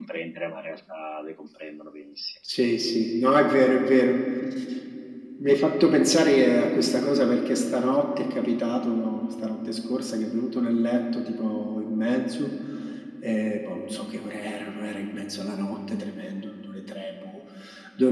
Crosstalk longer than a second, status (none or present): none